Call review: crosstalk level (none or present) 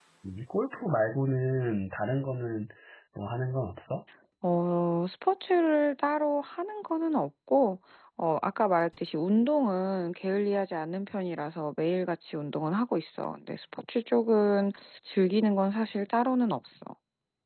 none